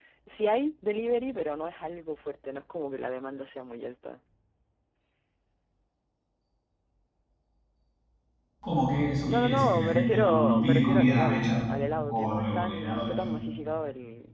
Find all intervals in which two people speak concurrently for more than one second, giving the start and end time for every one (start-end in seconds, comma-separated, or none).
9.3-11.5, 12.1-13.3